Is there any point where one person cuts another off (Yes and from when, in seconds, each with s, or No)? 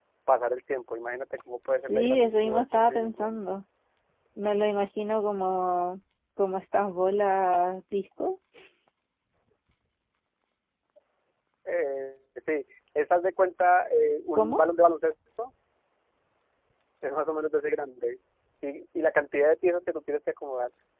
Yes, from 1.9 s